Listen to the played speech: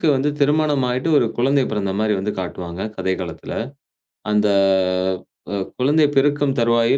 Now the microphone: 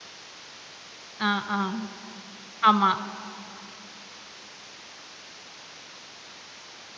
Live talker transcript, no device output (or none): ஆ, ஆ. ஆமா.